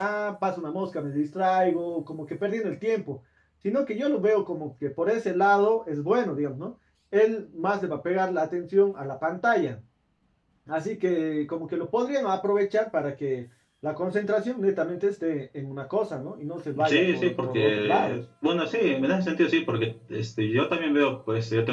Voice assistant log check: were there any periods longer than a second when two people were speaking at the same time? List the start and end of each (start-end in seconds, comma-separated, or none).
16.9-18.2